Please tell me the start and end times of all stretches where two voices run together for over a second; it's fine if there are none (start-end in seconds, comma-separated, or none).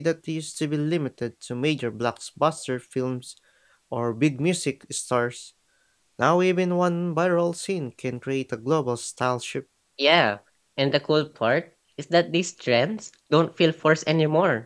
none